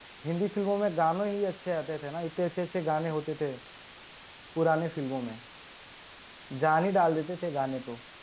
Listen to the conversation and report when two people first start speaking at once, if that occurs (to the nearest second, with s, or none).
none